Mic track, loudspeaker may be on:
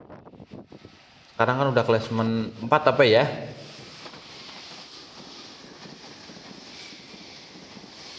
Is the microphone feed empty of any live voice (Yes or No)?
No